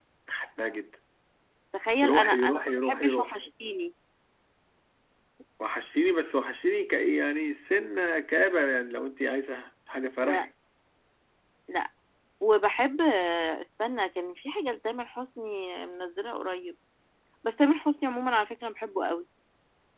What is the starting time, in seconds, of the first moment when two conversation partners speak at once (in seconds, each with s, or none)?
2.1 s